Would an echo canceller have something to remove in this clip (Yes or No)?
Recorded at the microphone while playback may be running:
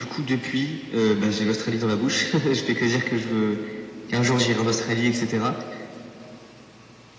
Yes